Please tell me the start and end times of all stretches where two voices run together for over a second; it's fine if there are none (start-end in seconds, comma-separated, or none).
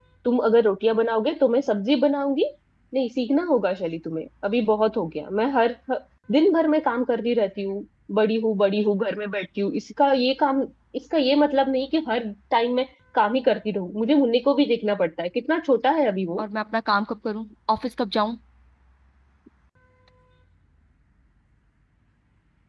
none